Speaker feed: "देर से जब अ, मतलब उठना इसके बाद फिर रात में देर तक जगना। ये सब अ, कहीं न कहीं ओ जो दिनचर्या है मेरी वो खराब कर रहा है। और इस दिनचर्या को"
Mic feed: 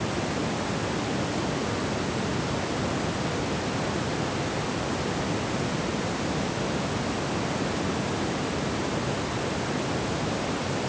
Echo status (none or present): none